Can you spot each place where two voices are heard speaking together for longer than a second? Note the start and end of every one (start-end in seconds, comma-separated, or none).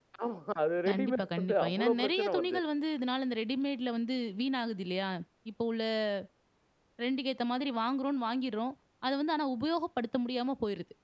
0.9-2.6